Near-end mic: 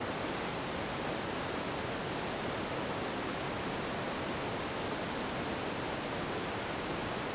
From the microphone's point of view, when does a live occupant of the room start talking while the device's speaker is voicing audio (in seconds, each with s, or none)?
none